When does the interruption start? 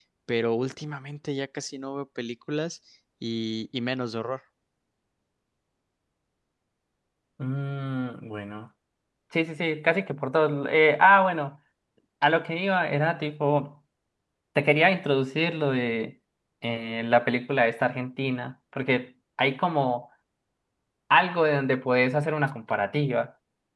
none

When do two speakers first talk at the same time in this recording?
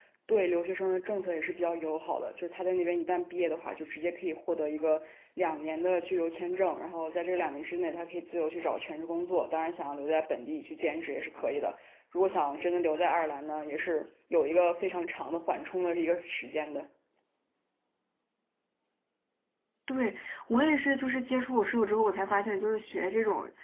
none

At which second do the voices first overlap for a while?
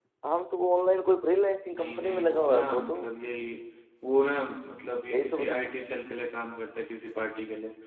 1.7 s

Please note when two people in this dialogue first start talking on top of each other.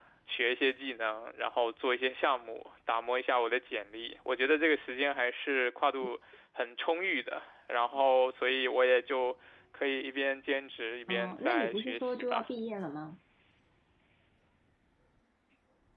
11.1 s

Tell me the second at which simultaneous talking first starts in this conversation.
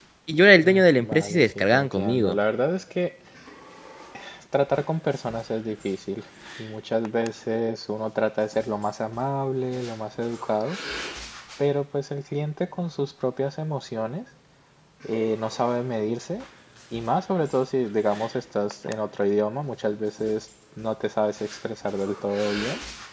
0.6 s

